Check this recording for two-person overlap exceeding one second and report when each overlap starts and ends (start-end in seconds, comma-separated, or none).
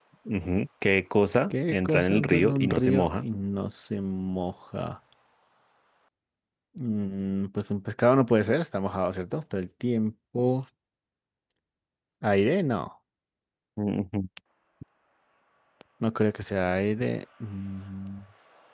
1.7-3.2